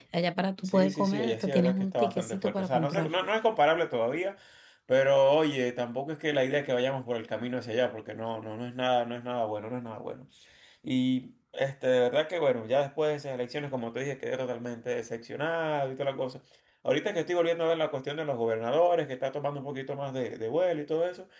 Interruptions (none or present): present